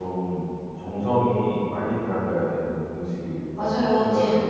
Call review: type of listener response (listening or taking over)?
taking over